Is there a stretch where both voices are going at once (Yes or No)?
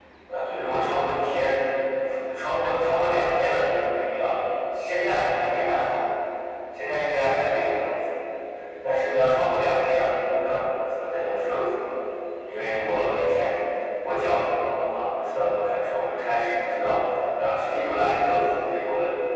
No